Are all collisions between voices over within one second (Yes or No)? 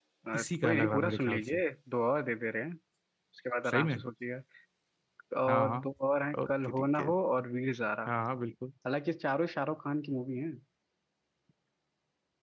No